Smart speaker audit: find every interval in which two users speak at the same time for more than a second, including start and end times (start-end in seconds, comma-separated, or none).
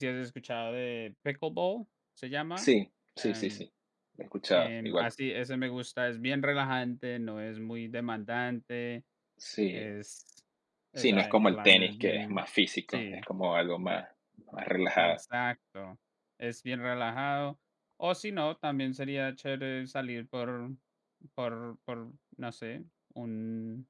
11.0-12.4